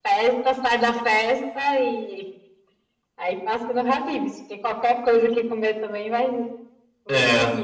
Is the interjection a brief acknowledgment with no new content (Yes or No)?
No